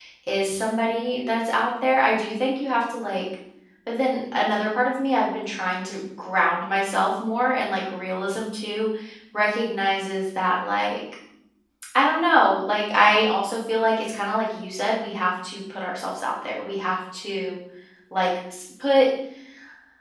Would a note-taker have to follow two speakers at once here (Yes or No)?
No